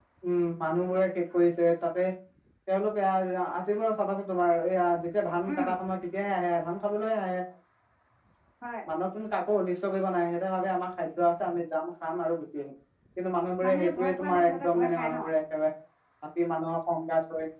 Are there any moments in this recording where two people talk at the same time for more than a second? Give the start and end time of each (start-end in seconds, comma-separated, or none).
13.6-15.2